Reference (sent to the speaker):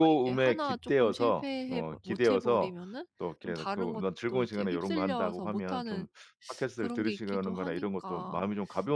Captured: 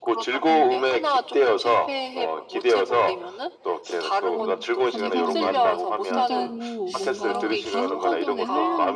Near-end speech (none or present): present